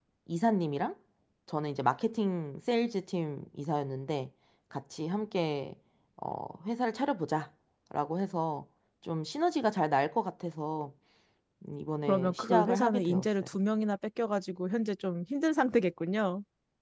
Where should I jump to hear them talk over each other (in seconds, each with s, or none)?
12.1 s